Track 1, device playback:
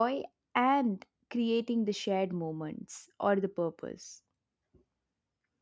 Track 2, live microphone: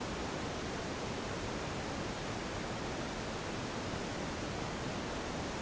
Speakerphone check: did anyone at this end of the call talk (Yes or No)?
No